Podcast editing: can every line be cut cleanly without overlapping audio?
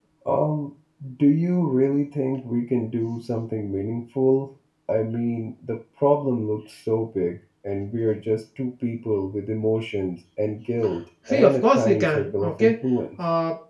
No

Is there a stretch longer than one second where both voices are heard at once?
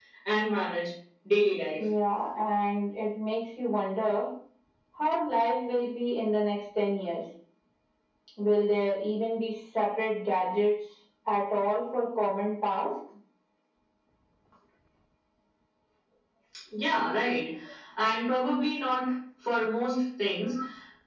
No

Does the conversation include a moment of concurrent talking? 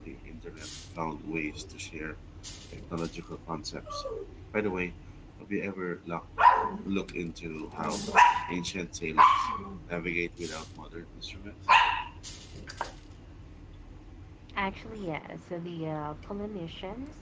No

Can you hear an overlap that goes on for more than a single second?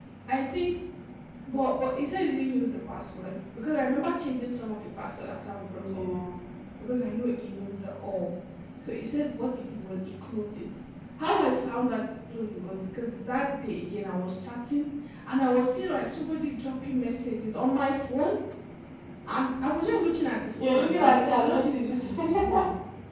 Yes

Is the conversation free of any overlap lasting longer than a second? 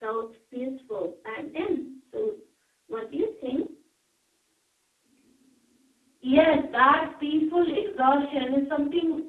Yes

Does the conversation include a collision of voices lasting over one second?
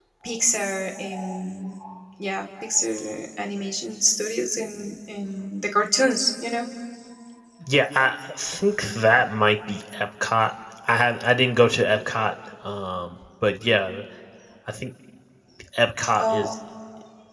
No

